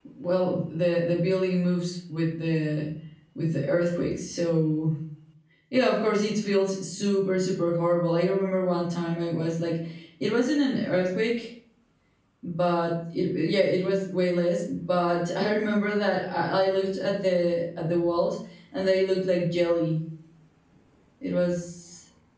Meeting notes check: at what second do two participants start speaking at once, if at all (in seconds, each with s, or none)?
none